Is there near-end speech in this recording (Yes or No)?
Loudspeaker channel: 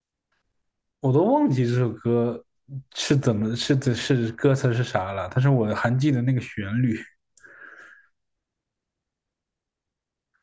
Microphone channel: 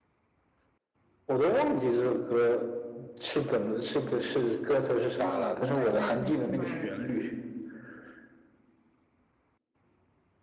Yes